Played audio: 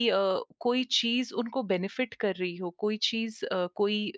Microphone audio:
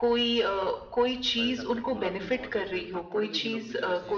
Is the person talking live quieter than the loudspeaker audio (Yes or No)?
Yes